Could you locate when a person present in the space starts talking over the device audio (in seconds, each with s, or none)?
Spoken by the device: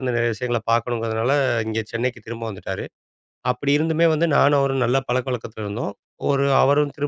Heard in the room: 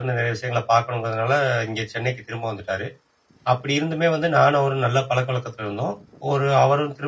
none